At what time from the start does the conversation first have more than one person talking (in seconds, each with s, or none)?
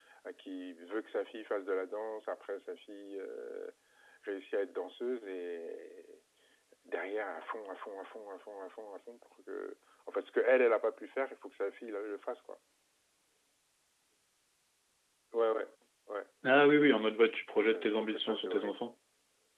17.5 s